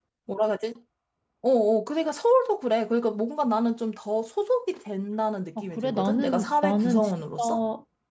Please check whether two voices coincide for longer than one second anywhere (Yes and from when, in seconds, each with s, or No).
Yes, from 5.6 s